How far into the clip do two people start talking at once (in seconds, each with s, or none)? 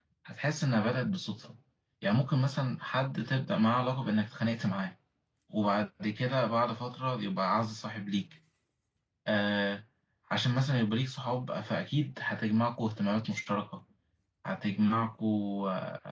none